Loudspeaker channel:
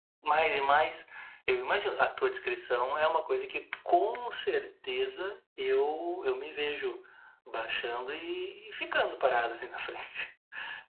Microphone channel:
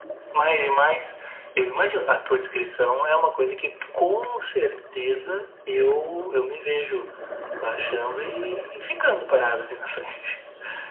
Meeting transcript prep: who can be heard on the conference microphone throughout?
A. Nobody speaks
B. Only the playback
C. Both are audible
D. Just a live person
B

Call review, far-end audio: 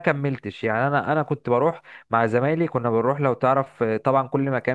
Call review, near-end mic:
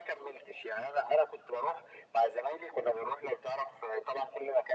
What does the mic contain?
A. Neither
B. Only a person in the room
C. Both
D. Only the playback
D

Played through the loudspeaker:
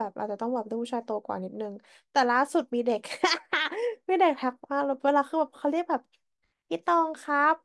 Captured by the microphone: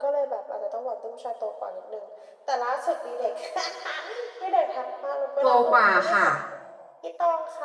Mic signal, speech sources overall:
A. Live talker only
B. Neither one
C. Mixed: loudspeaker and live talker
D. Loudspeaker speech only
C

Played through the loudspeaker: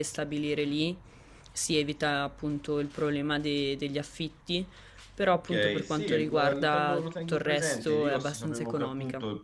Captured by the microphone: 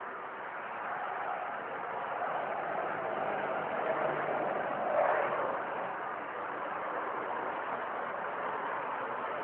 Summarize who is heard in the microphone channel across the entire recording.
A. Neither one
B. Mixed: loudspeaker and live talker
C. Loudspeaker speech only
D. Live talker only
A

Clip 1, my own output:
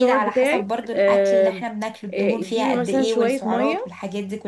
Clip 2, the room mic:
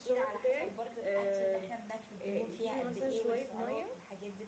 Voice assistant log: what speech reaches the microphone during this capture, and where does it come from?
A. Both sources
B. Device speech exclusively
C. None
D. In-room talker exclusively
B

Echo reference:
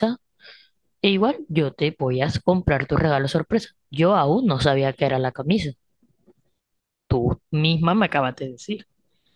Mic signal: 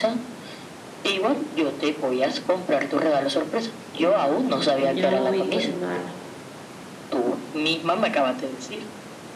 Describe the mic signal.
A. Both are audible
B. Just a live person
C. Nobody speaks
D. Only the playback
A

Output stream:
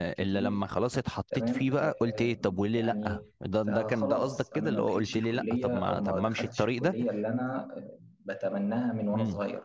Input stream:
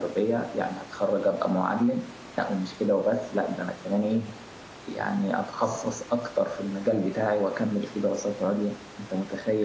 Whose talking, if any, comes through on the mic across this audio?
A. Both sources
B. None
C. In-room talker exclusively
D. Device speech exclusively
C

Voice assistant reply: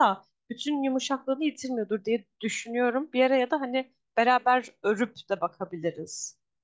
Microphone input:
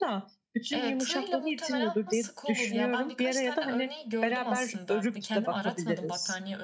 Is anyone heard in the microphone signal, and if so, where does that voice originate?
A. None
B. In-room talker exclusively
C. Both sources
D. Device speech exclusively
C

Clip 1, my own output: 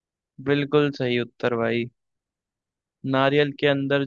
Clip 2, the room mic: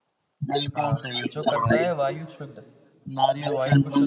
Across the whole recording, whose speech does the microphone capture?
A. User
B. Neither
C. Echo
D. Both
D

